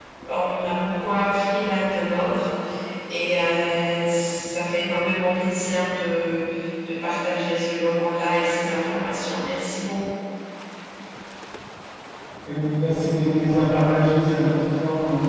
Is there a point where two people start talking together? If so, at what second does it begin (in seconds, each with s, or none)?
none